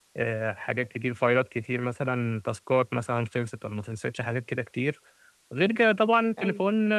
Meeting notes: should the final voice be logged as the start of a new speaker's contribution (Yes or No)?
No